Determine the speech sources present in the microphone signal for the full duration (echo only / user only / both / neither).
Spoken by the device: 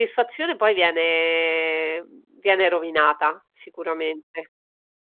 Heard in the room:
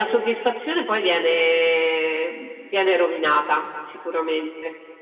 echo only